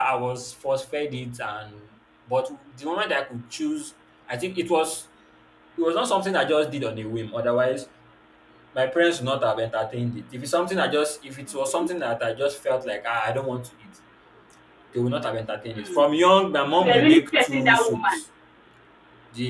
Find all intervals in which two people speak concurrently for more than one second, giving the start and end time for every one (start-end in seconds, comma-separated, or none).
16.8-18.2